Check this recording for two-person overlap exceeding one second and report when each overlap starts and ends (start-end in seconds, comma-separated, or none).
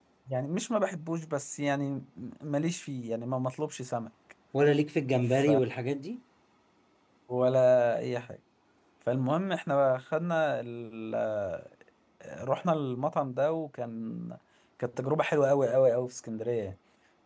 none